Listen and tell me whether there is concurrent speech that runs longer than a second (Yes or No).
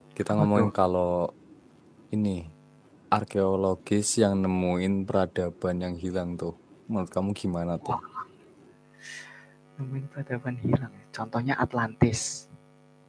No